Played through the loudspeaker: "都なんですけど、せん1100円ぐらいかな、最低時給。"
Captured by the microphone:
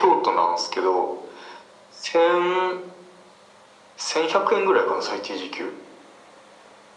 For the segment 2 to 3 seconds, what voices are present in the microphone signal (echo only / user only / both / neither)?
echo only